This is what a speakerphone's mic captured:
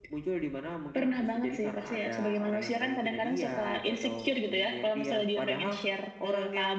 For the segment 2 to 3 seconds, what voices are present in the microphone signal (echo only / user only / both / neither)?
echo only